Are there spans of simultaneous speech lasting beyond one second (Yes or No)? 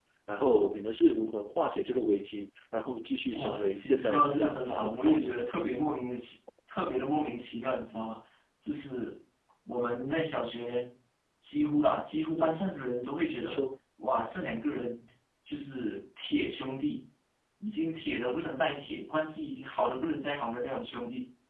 Yes